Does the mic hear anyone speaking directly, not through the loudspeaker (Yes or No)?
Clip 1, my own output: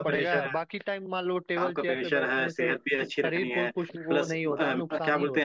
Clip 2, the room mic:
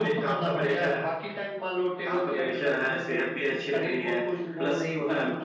No